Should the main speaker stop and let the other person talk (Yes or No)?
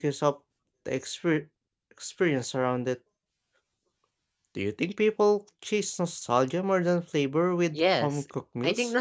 Yes